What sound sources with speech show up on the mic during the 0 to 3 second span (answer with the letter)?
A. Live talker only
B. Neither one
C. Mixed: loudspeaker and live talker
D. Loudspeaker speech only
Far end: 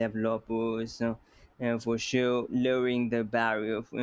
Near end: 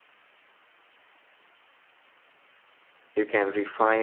B